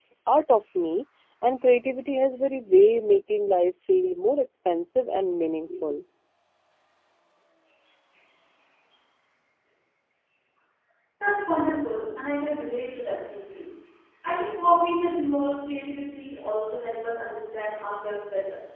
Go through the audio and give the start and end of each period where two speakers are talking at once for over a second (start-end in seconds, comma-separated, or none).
none